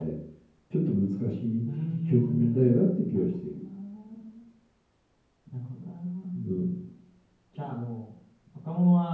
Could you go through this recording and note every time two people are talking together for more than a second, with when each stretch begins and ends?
1.8-3.6

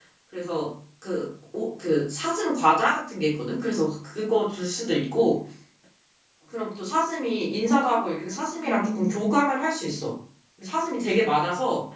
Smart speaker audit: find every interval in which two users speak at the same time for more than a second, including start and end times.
7.7-9.2

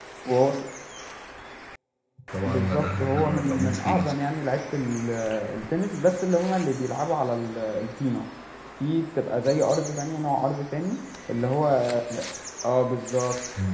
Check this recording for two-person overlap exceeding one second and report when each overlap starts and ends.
2.5-4.1

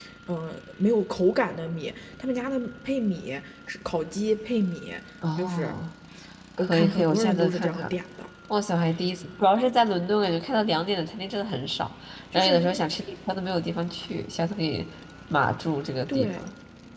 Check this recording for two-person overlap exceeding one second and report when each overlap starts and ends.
6.6-7.9

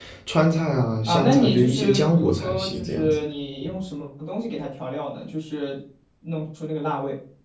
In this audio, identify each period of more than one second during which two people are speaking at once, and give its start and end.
1.1-3.1

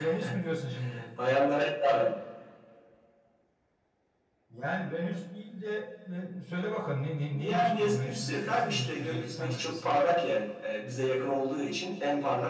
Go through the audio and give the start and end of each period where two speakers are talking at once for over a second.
7.3-10.1

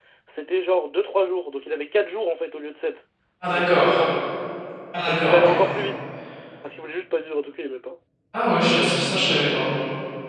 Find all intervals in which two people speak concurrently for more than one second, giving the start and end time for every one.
none

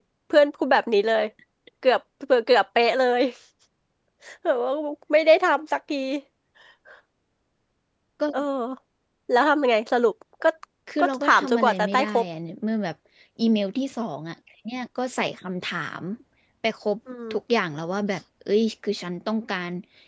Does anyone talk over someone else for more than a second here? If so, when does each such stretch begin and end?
11.0-12.2

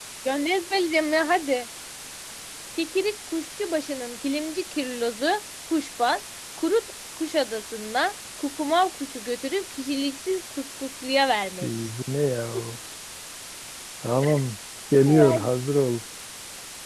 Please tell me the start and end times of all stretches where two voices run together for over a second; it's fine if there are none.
none

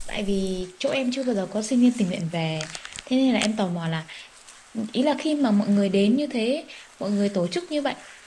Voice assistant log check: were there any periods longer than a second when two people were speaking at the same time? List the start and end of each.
none

